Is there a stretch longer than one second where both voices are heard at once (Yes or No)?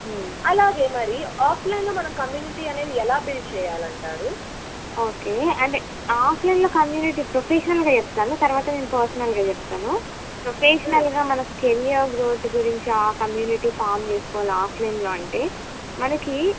No